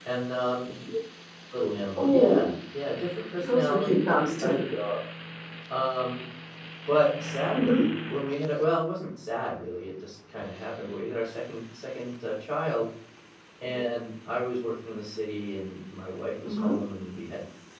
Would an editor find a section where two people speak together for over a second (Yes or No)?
Yes